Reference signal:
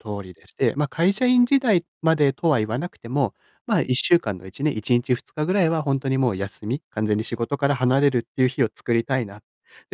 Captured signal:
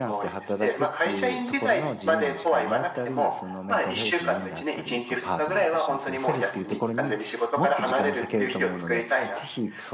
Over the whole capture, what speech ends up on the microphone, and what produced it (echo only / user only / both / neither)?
both